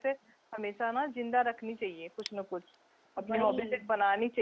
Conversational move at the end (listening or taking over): listening